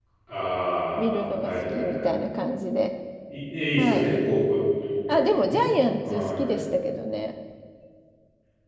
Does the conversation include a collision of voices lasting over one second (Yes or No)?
Yes